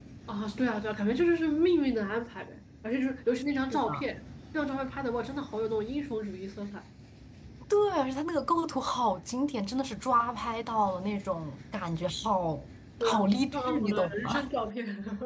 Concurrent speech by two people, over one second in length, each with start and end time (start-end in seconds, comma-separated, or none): 13.0-14.5